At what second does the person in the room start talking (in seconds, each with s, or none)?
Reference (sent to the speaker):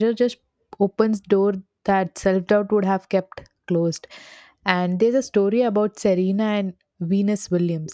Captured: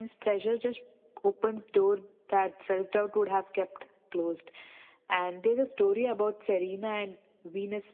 none